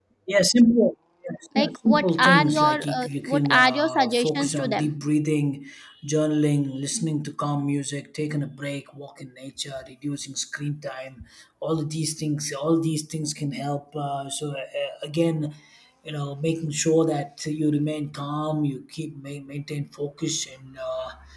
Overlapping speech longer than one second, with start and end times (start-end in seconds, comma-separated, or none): 1.6-4.9